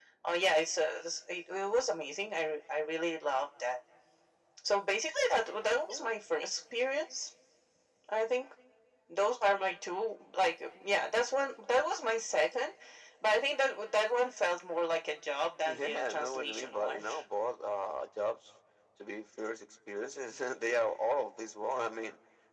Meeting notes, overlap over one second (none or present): present